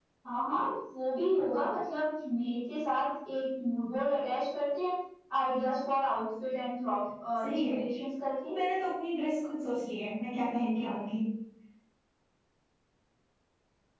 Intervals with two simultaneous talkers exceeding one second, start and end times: none

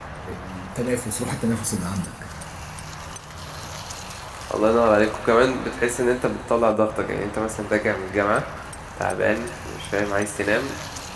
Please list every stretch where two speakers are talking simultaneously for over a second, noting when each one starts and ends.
none

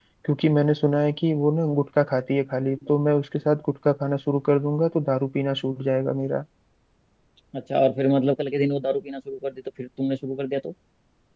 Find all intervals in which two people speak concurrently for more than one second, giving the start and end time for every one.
none

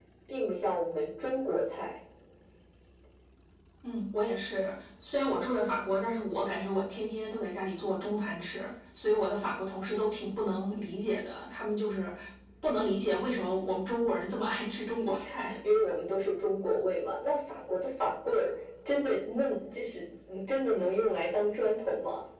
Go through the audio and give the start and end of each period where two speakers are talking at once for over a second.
none

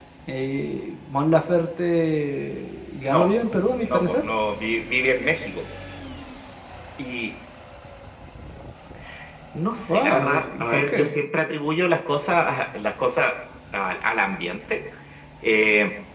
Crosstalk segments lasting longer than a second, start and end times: 9.9-11.1

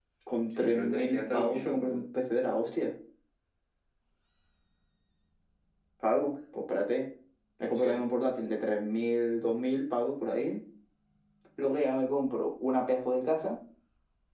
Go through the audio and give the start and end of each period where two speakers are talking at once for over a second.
0.5-2.0

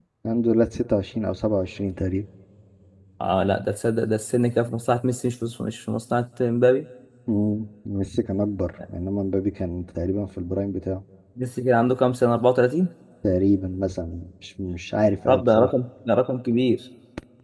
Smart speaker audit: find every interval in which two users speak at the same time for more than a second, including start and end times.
none

